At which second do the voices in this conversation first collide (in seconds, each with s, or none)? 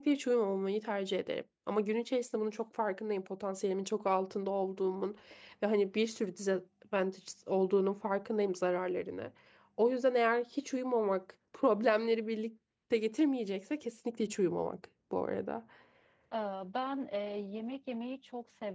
none